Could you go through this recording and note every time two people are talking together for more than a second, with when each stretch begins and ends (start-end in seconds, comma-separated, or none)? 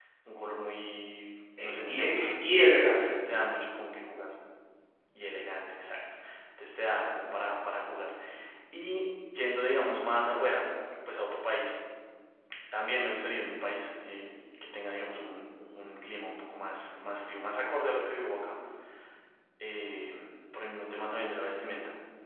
1.6-3.0